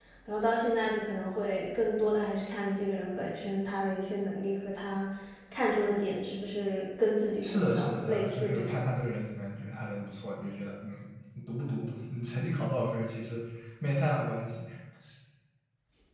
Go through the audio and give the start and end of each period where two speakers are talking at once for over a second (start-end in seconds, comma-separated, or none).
7.4-9.0